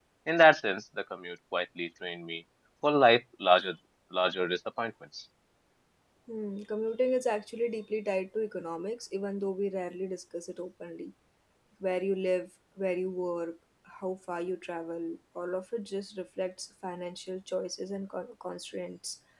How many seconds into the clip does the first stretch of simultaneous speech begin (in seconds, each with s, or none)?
none